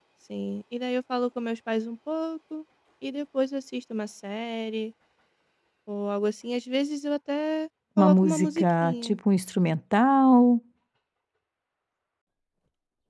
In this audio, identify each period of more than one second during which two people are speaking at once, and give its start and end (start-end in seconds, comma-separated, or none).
8.0-9.2